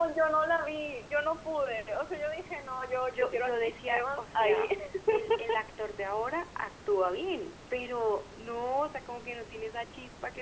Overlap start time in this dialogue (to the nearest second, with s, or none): 3 s